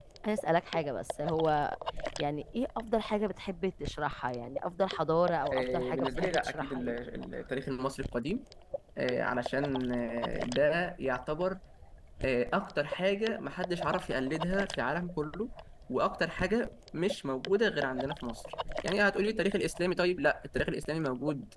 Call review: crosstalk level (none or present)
present